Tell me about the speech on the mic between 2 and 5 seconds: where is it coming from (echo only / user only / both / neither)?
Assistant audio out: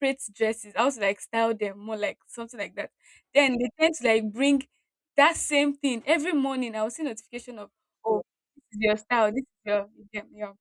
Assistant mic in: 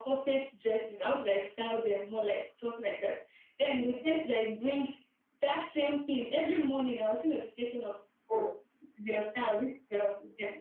echo only